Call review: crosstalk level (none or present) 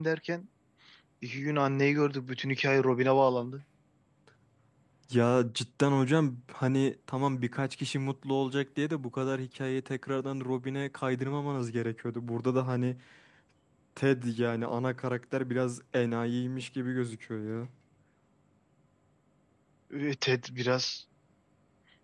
none